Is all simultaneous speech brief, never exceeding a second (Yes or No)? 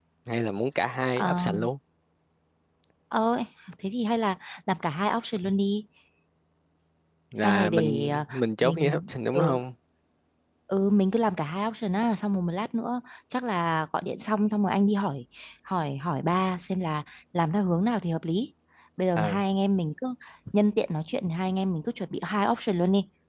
No